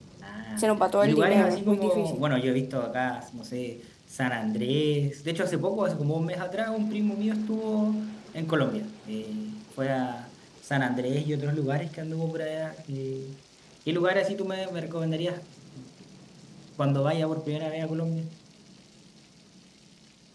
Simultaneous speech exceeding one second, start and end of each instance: 0.6-2.2

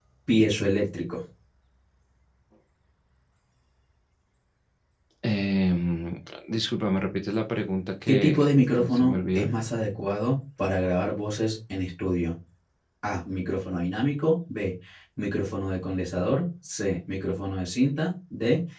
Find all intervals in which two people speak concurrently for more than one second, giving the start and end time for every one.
8.1-9.5

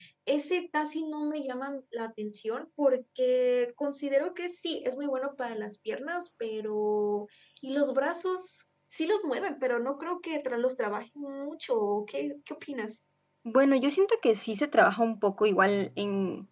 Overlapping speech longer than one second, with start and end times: none

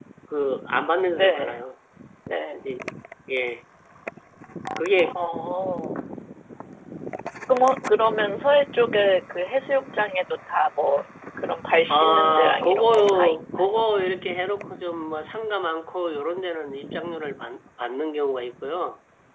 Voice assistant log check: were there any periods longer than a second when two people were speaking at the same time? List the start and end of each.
11.9-13.8

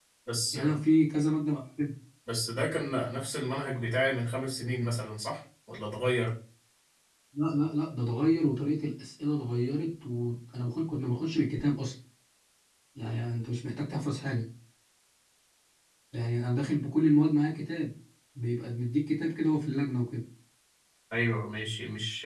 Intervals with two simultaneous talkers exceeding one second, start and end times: none

